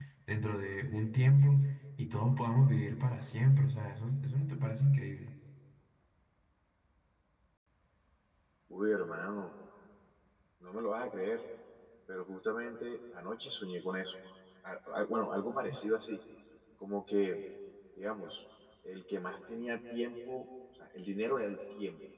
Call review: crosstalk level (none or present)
none